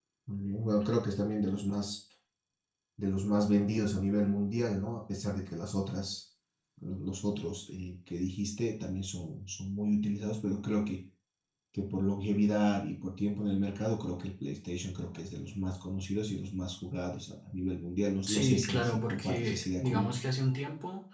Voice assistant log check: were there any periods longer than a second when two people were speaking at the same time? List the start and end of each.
18.3-20.1

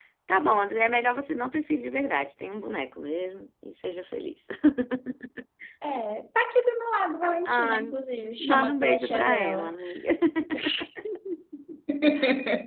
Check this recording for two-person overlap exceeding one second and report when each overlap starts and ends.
8.4-9.7

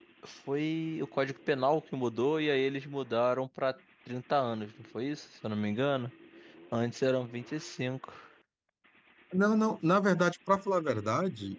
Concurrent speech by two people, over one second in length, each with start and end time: none

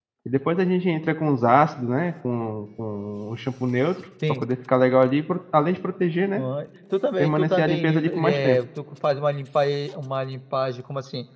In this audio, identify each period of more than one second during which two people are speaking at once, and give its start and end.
7.2-8.6

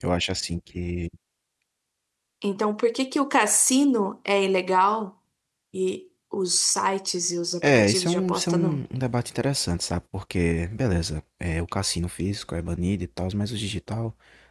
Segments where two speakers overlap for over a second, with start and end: 7.6-8.8

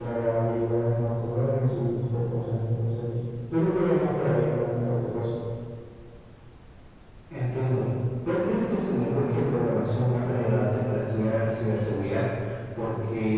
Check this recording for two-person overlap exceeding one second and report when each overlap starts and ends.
none

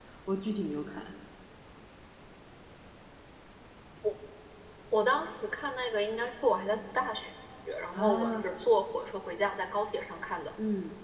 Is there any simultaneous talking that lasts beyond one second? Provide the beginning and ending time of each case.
none

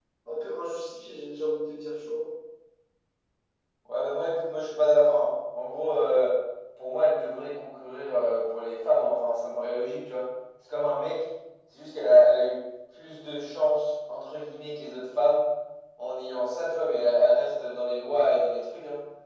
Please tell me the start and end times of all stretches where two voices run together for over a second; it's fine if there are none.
none

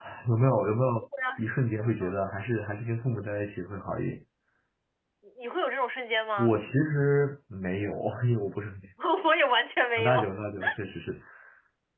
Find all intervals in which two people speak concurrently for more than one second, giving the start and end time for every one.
none

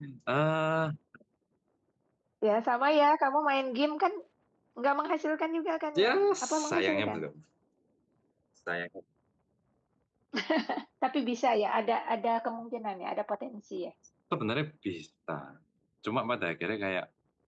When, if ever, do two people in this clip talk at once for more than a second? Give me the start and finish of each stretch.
6.0-7.2

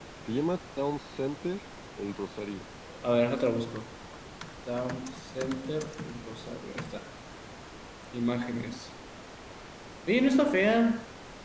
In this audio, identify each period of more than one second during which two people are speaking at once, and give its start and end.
none

